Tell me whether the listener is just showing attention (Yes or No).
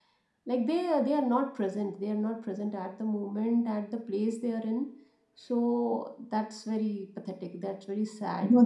No